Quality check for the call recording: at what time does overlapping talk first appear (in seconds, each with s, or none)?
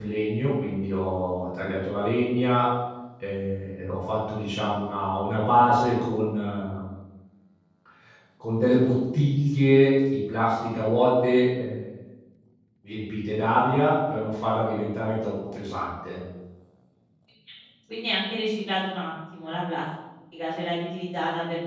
none